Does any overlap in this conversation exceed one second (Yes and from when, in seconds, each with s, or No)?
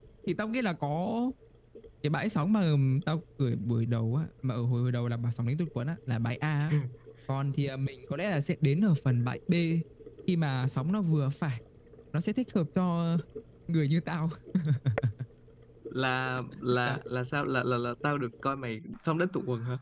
No